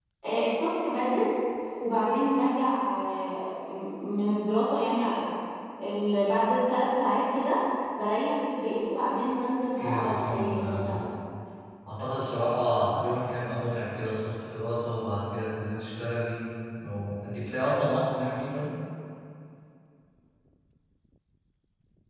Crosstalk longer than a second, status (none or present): present